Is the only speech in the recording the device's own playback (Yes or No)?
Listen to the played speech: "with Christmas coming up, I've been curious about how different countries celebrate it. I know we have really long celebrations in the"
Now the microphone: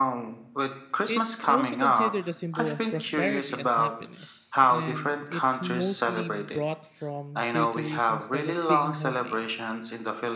No